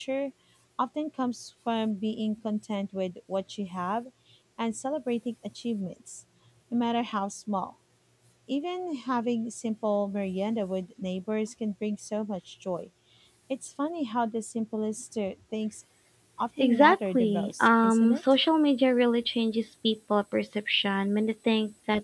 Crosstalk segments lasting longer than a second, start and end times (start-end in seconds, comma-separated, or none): 16.6-18.2